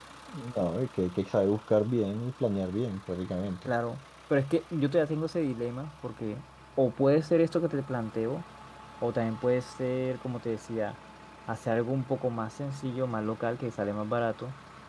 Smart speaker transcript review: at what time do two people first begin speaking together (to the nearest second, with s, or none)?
none